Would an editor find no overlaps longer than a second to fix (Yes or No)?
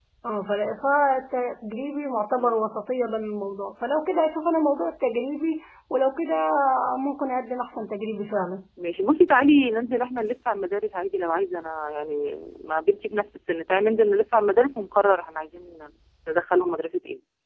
Yes